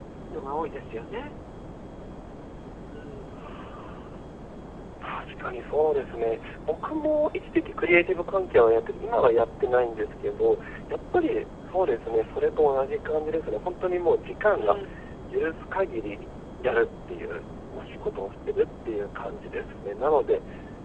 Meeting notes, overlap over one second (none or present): none